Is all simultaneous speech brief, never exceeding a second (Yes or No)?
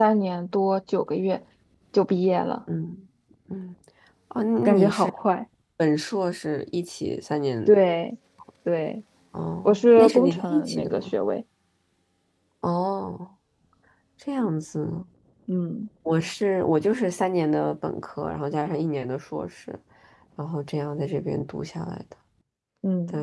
No